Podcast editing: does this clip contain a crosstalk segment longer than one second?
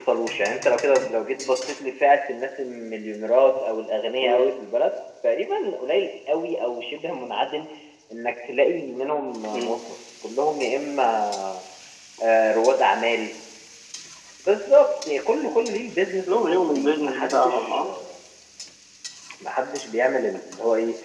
Yes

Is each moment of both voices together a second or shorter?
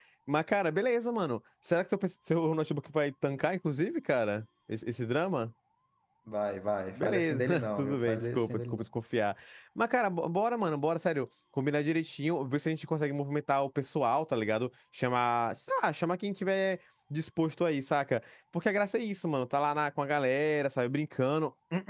No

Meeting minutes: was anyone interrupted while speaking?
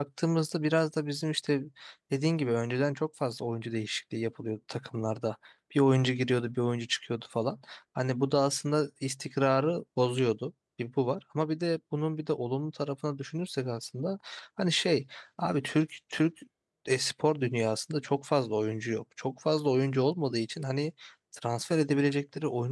No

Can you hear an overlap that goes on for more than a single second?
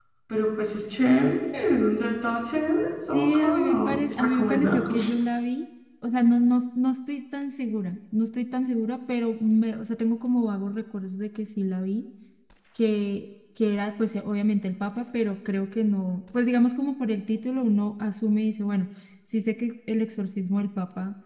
Yes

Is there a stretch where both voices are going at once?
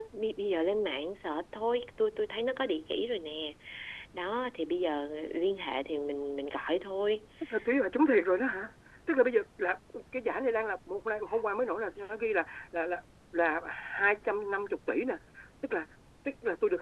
No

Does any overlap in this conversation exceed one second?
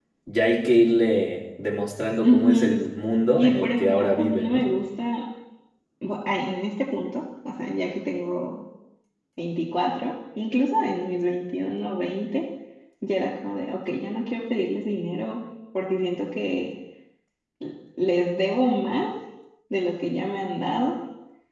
Yes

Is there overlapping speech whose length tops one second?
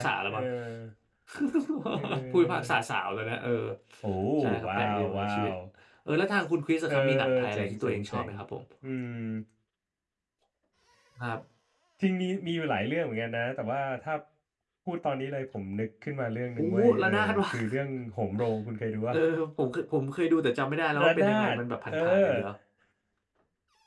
Yes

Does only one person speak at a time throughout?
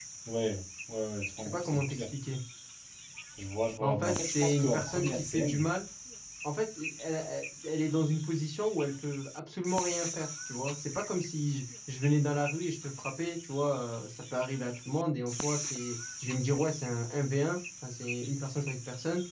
No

